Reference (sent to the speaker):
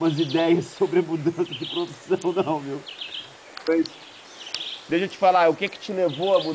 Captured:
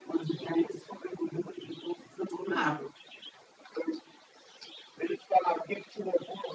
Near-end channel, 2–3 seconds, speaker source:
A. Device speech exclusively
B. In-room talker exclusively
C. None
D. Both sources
D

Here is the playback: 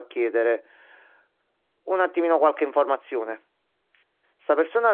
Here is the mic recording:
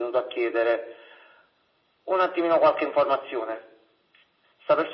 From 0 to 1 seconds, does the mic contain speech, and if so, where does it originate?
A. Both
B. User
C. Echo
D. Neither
C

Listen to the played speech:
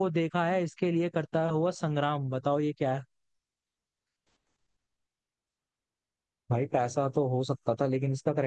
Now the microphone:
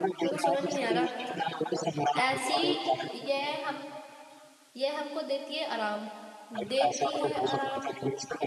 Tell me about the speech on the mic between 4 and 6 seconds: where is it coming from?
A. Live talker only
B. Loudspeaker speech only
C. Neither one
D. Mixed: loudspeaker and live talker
A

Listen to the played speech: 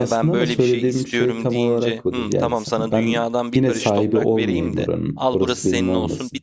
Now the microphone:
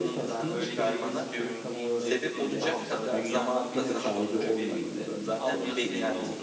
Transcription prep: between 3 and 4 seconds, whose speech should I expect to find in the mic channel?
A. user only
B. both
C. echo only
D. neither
B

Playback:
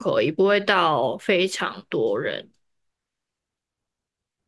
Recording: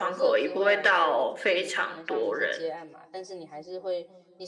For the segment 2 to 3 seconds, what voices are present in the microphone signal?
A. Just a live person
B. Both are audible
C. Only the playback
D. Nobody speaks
B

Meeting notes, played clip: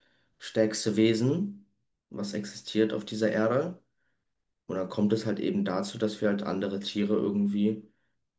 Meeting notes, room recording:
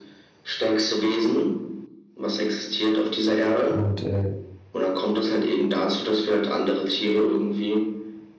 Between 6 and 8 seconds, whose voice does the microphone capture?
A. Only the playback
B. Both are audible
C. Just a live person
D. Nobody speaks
A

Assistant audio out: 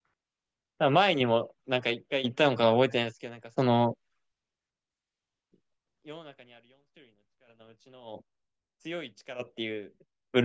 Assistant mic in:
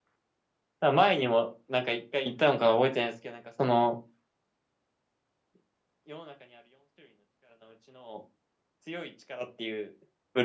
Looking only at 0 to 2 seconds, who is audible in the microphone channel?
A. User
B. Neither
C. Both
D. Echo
D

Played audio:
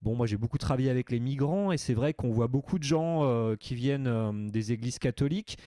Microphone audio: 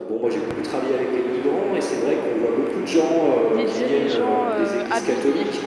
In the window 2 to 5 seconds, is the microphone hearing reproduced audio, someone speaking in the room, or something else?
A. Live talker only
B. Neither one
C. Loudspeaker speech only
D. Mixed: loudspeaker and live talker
D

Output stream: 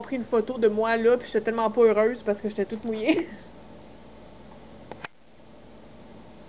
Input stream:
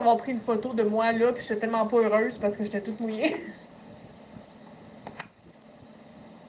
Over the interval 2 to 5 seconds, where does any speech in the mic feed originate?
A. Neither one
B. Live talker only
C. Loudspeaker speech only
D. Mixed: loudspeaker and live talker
C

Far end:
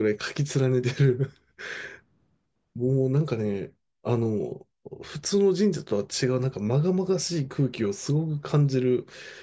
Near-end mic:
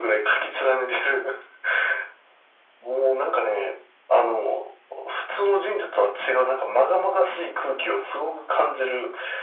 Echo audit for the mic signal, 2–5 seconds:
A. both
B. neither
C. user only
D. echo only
D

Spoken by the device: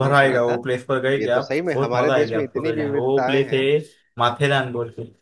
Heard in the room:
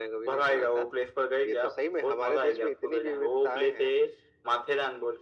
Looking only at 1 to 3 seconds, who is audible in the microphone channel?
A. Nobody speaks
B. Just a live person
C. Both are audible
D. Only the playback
D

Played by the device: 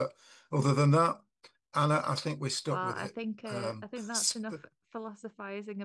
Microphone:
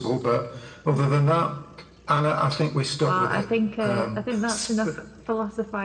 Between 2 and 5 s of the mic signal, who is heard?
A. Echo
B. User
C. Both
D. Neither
A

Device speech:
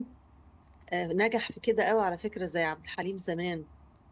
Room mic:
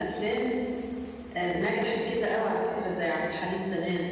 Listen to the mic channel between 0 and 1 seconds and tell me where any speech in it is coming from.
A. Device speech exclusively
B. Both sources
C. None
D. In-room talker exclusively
A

